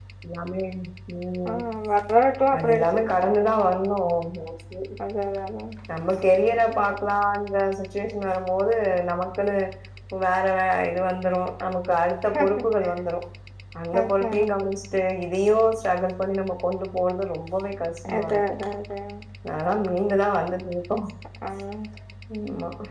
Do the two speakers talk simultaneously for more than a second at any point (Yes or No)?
No